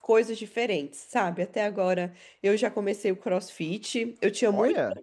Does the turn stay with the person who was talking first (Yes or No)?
Yes